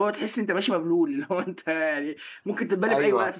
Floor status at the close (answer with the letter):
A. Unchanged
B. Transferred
B